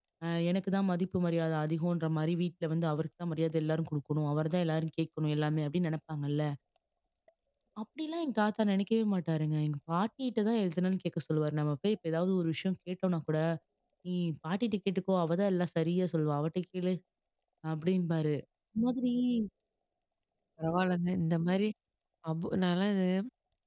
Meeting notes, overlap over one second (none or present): none